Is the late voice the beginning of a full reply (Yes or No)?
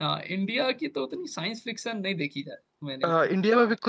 Yes